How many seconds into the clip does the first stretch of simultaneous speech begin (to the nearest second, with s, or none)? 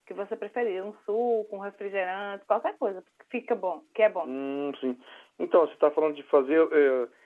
none